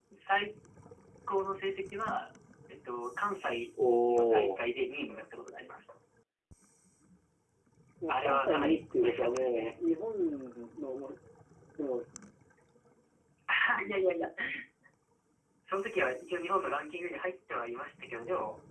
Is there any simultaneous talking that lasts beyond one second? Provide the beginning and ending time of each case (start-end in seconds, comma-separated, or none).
8.1-9.7